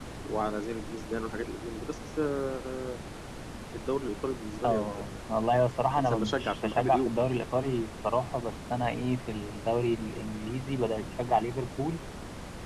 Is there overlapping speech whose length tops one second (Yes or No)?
Yes